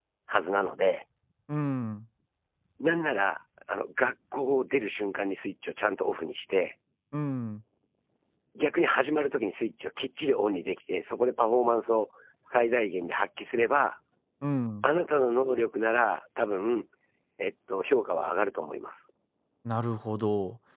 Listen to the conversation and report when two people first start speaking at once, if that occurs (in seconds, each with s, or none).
none